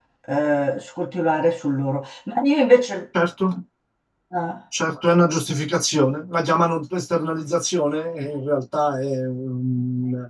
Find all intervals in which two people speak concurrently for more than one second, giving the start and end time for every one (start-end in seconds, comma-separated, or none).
none